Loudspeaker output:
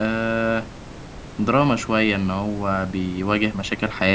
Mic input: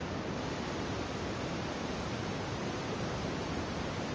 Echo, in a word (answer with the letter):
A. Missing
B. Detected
A